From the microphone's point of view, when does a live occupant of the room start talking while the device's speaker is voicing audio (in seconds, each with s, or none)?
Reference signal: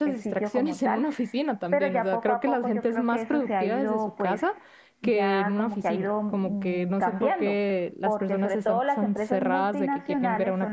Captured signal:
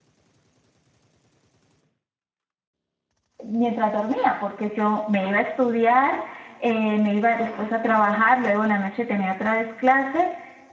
3.4 s